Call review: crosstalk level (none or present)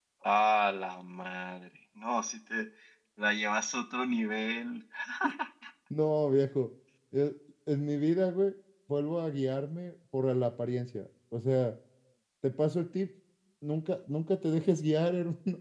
none